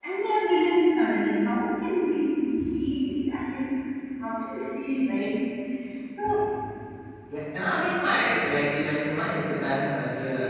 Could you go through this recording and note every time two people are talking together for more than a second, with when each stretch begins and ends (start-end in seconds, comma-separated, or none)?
none